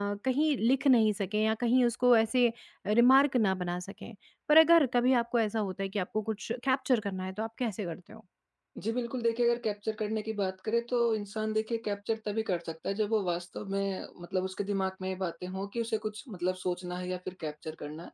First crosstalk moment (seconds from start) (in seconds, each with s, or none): none